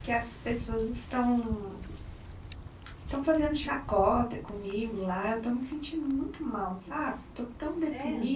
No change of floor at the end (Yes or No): Yes